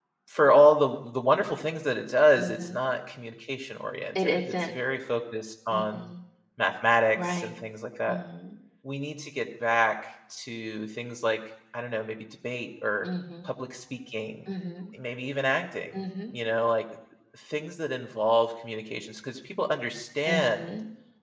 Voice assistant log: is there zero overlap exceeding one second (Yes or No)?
Yes